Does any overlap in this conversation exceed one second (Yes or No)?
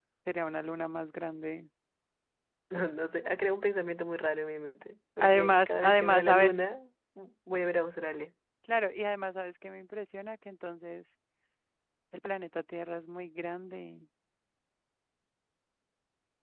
Yes